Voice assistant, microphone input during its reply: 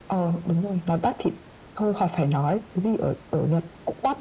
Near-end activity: none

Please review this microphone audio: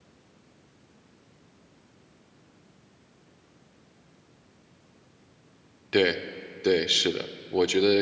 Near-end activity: present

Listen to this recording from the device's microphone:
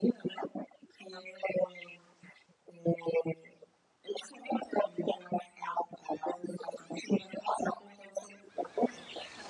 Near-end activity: none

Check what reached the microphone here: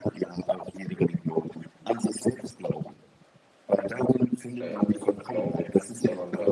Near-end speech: present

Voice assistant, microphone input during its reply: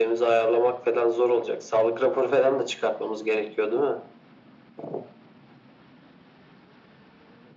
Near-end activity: none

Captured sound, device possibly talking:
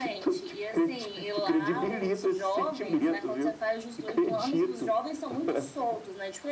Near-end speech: none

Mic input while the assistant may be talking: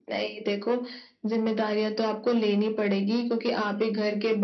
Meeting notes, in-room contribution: none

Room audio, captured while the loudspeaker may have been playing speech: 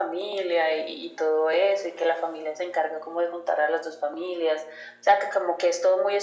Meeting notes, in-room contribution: none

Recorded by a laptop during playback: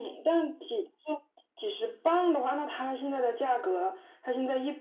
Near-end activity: none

